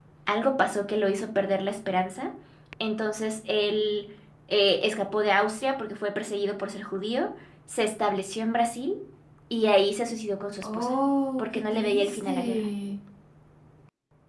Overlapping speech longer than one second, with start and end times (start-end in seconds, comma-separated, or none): 11.4-12.6